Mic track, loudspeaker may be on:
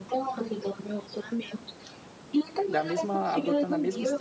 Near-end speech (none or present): present